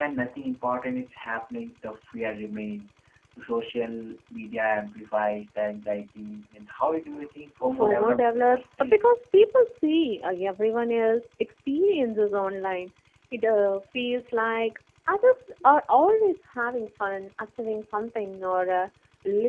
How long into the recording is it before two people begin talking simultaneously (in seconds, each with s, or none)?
7.8 s